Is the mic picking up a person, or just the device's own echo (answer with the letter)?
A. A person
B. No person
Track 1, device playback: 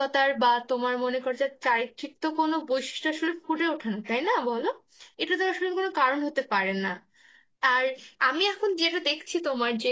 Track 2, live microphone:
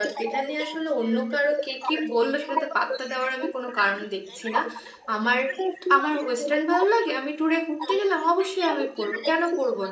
A